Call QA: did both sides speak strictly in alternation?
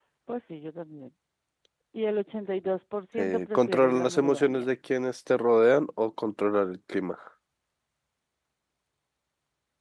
No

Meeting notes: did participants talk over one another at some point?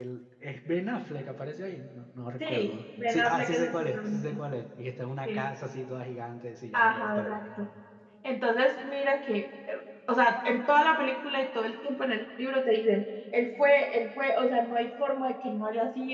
Yes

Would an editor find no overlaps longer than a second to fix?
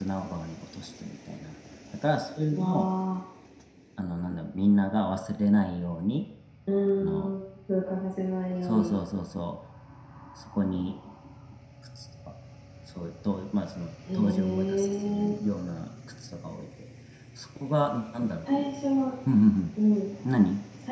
No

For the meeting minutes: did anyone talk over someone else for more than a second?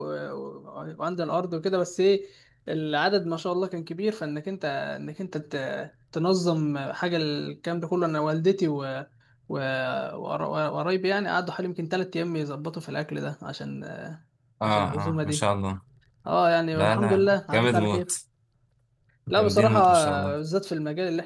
Yes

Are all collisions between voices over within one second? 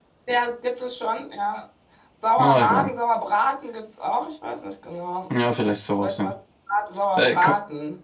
Yes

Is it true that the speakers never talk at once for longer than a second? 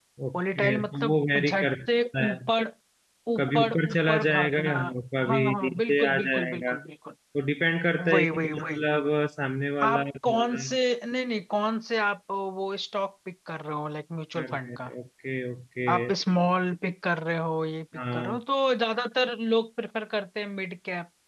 No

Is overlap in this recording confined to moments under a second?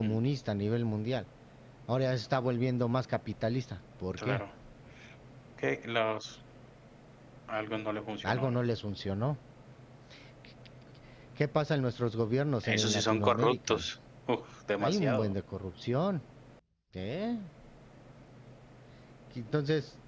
No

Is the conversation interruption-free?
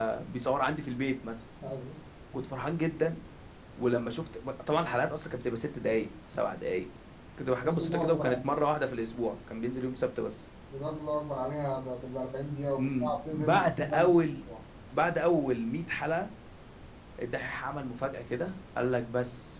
No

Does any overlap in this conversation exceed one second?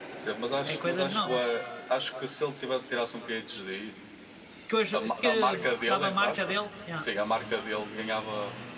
Yes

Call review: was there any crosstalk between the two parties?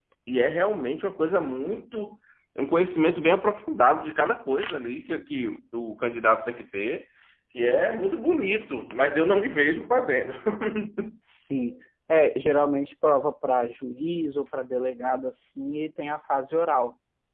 No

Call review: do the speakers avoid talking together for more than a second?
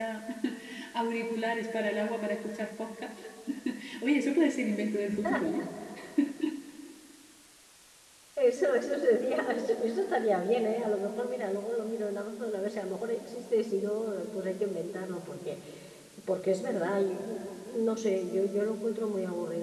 Yes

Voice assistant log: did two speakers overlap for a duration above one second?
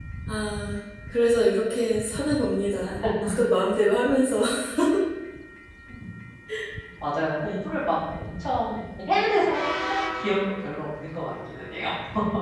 No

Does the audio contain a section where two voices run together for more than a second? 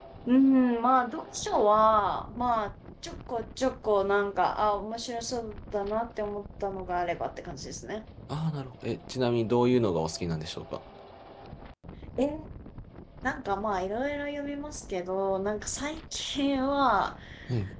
No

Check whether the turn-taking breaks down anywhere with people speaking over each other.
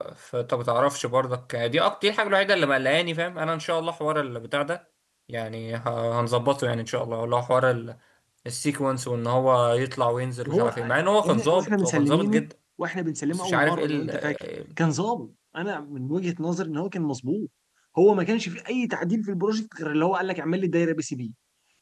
Yes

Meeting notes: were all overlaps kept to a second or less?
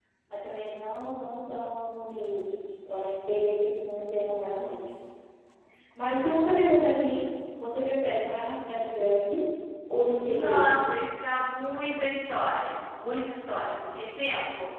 Yes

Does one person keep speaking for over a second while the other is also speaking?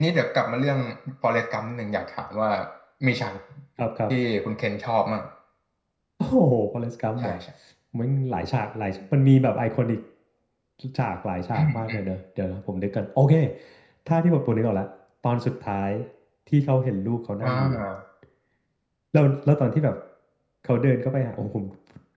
No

